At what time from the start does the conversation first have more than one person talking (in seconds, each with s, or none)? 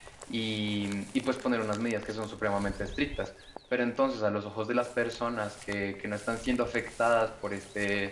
none